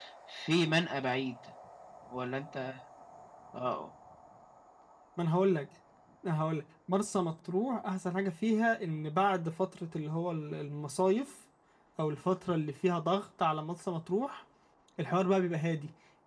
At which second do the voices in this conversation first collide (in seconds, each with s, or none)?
none